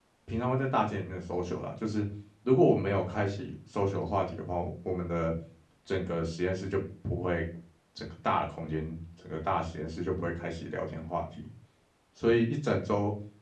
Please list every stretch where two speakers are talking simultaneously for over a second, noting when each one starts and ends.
none

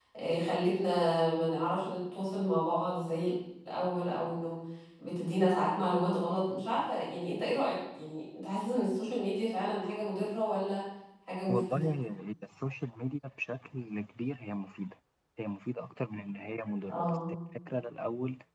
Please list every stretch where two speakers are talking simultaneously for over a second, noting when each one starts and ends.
none

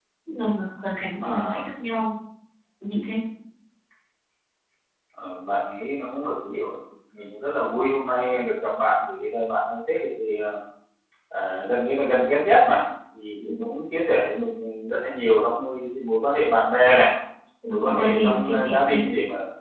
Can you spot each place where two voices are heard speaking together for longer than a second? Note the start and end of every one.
17.7-19.0

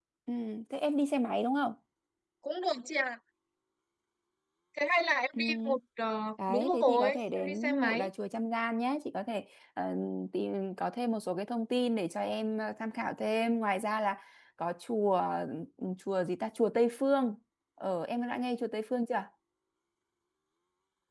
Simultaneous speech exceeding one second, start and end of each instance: 6.5-8.1

